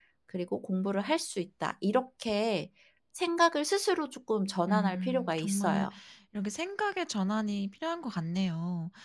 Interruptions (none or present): present